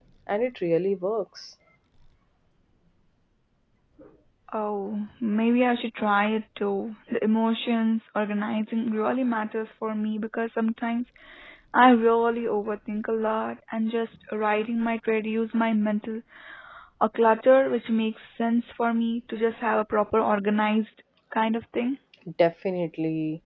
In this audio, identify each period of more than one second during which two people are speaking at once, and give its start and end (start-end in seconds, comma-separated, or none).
none